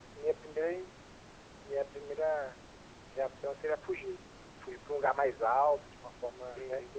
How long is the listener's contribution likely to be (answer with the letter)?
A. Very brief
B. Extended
A